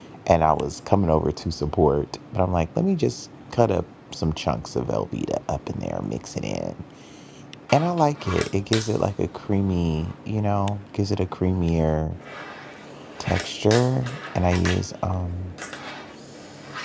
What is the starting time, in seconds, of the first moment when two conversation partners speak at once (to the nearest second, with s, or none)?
none